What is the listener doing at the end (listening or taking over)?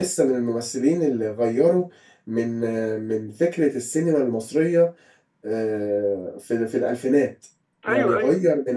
listening